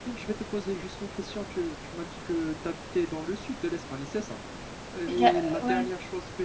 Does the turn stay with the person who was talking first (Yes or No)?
Yes